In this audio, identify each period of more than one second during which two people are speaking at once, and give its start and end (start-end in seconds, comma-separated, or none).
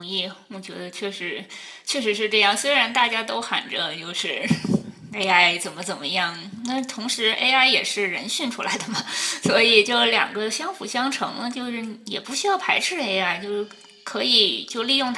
none